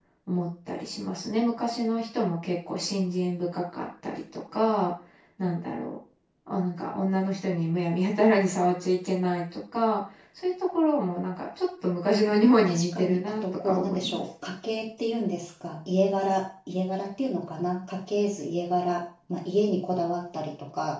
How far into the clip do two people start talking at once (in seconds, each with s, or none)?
12.7 s